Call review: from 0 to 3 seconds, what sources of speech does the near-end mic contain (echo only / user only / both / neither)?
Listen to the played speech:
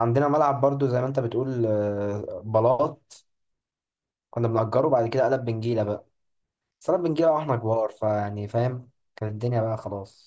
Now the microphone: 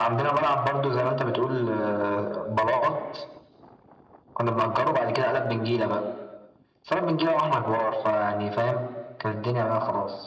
echo only